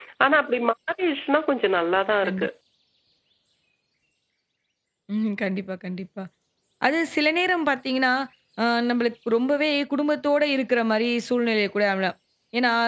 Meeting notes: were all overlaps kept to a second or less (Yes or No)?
Yes